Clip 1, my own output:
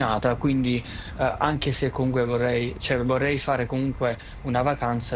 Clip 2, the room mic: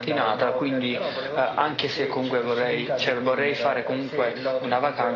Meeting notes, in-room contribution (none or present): present